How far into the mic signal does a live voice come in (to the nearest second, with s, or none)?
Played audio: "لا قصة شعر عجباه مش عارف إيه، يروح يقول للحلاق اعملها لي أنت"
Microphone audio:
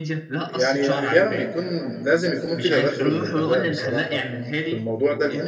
0 s